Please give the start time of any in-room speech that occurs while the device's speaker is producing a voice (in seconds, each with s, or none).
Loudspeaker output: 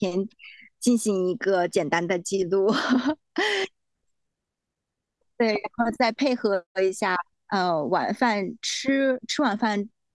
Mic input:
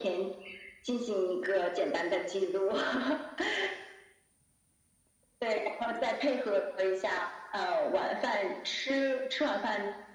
none